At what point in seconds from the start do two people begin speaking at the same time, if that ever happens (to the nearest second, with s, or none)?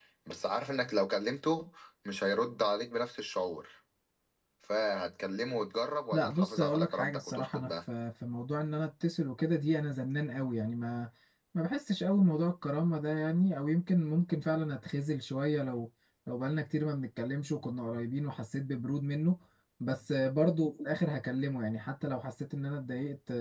6 s